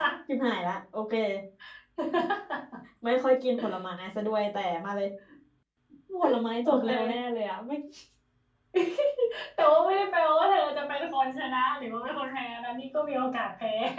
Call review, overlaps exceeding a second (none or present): none